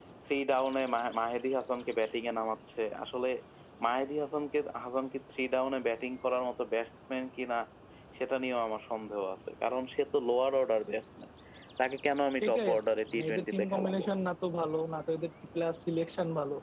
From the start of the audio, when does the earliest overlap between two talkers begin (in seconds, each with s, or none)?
12.4 s